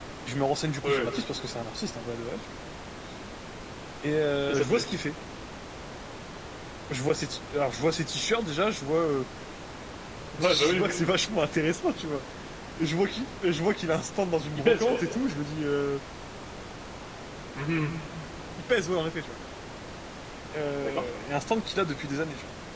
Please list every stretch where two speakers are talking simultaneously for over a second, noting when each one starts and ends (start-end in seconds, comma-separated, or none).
none